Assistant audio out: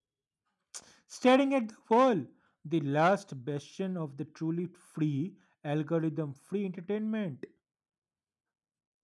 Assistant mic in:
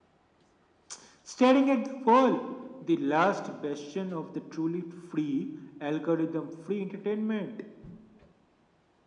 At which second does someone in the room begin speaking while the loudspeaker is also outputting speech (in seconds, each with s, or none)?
none